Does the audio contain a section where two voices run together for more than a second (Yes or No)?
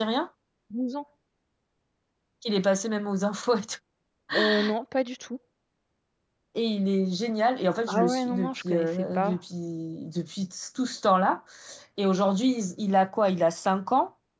Yes